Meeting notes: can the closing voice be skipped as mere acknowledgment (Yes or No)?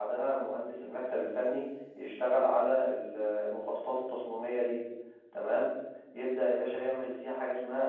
Yes